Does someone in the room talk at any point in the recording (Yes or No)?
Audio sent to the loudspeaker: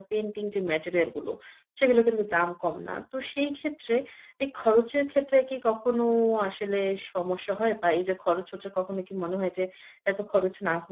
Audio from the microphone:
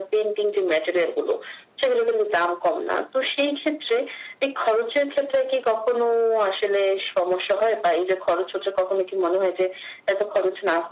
No